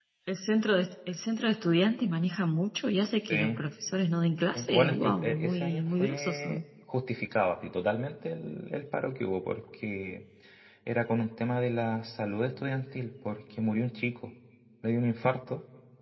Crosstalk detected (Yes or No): Yes